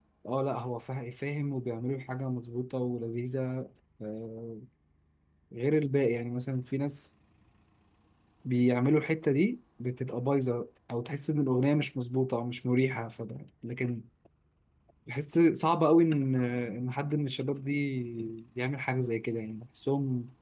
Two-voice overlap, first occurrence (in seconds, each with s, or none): none